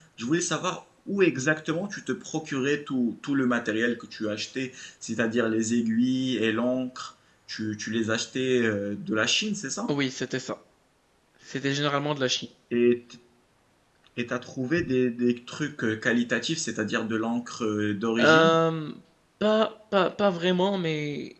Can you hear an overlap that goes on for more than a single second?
No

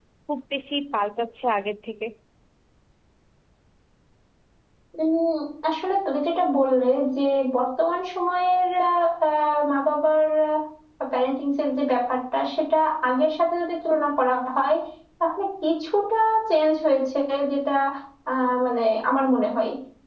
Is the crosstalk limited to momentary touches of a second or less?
Yes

